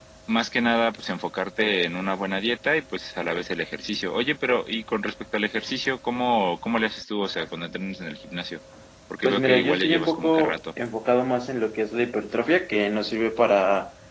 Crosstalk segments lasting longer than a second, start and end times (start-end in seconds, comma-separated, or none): 9.2-10.6